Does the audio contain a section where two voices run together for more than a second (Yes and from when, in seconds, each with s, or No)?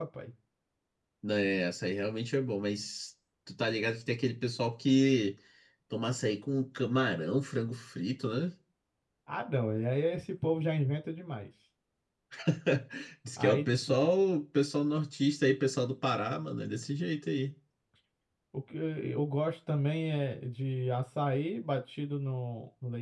No